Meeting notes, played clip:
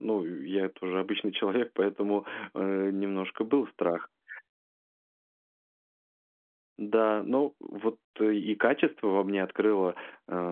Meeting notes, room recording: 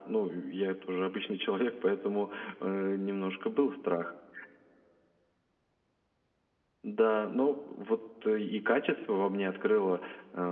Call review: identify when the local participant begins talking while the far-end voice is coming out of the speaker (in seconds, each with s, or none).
none